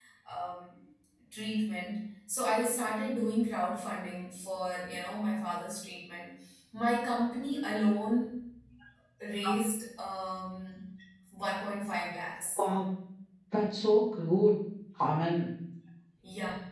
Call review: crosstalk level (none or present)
none